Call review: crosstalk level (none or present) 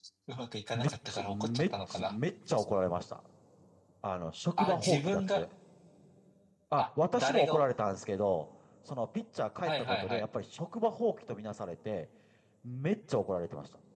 present